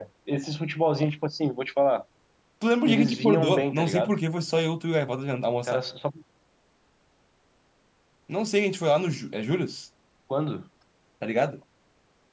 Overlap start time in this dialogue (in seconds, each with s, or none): 2.8 s